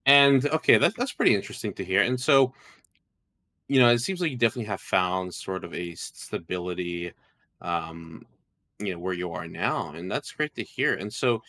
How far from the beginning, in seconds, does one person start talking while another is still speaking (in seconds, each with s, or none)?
none